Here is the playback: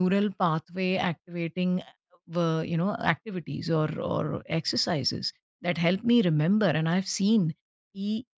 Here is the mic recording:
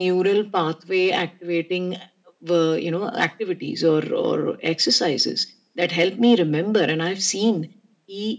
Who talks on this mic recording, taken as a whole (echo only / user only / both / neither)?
echo only